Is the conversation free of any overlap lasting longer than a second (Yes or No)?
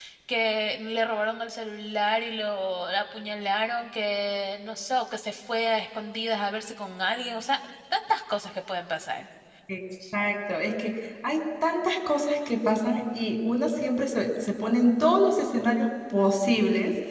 Yes